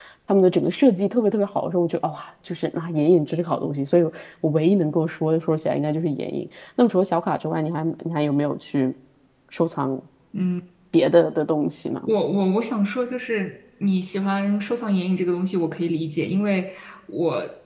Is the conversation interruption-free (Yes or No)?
Yes